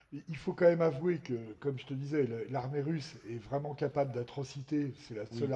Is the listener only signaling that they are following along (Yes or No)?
Yes